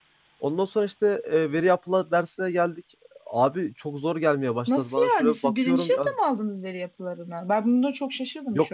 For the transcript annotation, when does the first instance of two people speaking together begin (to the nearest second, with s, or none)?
5 s